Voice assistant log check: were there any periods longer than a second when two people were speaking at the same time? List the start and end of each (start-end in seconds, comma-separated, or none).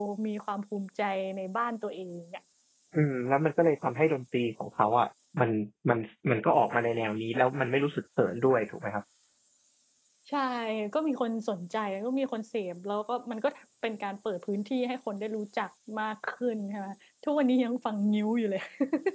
none